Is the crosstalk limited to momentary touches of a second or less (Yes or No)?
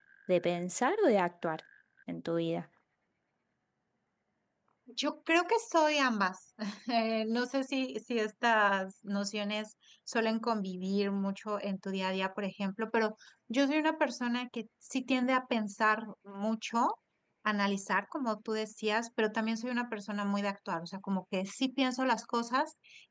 Yes